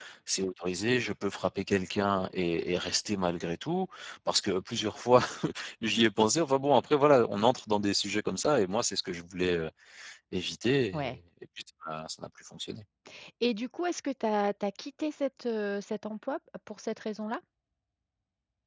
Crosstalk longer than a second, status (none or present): none